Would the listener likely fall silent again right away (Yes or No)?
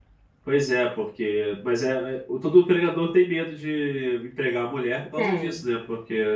Yes